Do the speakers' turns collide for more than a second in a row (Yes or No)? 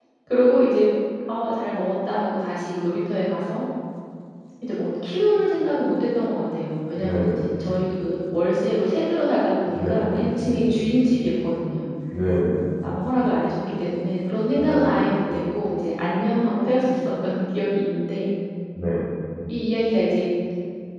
Yes